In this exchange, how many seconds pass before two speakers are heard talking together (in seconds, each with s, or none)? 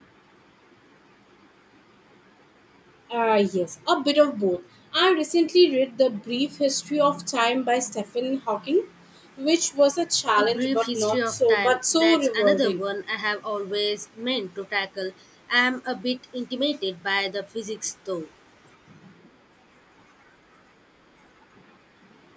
10.4 s